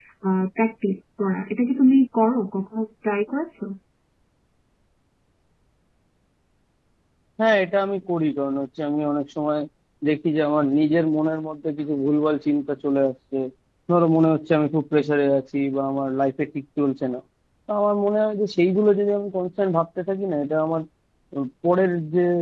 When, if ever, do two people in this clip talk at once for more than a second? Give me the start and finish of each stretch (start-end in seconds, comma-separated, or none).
none